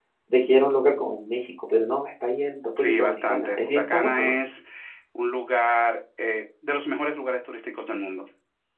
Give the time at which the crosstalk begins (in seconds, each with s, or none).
2.8 s